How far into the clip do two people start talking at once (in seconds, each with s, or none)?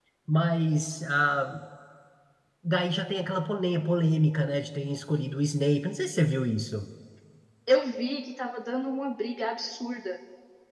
none